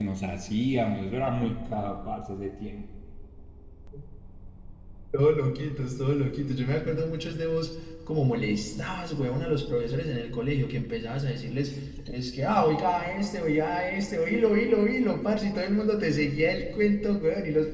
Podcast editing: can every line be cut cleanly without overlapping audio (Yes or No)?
Yes